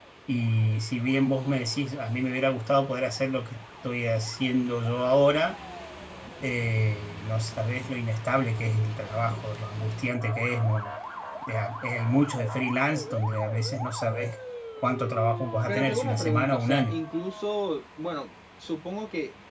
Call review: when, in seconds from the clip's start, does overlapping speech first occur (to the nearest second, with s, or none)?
16 s